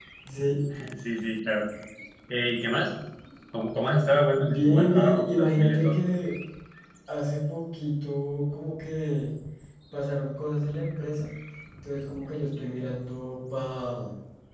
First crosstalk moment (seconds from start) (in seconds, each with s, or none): 4.3 s